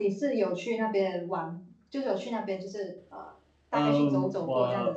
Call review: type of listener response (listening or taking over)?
taking over